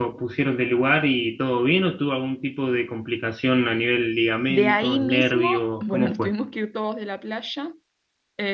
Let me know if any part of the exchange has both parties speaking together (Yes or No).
Yes